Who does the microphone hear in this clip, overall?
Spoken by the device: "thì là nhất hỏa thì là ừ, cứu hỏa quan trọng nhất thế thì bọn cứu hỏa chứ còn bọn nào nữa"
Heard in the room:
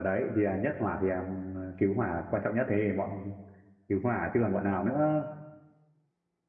echo only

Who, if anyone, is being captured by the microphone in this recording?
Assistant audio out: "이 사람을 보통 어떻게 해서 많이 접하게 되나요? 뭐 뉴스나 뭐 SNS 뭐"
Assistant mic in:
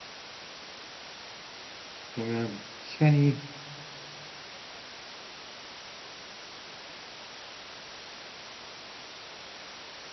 user only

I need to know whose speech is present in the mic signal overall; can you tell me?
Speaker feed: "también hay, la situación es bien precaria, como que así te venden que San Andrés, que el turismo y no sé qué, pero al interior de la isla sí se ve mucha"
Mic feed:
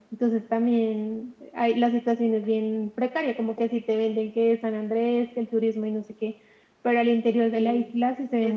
both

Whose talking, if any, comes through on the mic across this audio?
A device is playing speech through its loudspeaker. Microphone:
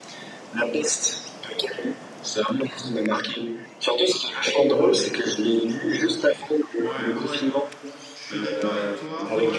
both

